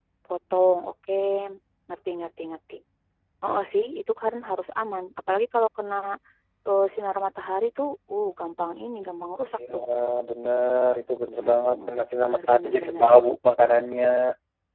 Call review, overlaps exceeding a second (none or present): present